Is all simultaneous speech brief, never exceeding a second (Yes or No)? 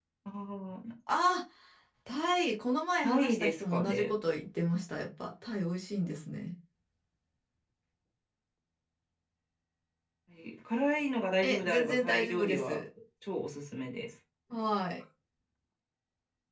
No